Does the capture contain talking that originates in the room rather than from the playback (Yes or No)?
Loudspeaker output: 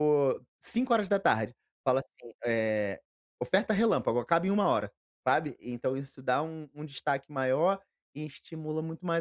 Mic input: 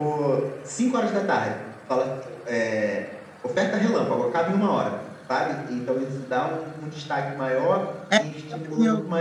Yes